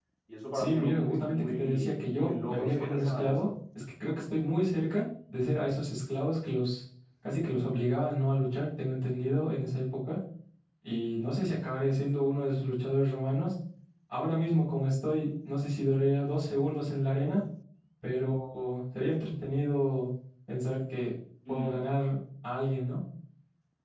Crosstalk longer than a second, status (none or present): present